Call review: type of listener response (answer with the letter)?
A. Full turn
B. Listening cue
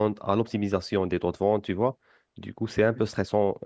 B